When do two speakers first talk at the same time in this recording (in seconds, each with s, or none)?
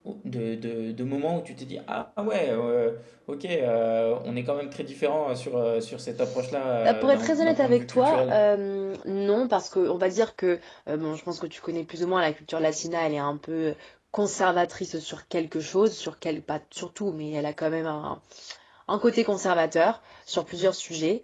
6.8 s